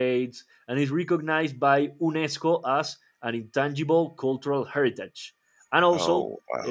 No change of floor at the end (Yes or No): Yes